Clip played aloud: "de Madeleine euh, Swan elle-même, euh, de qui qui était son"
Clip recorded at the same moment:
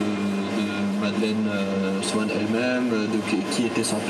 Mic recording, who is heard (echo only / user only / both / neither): echo only